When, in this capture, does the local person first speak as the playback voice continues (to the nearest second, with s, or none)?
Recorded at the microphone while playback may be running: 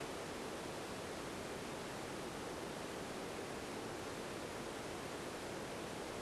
none